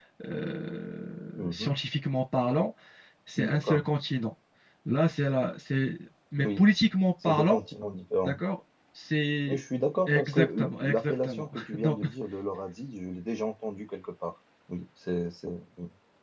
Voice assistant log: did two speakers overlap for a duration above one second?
Yes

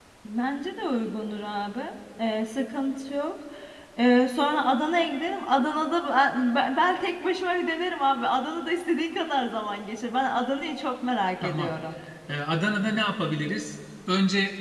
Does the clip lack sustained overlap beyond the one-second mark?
Yes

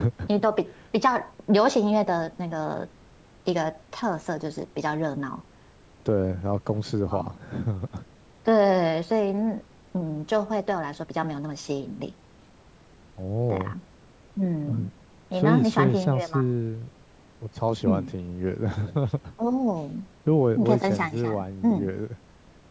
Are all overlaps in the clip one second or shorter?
No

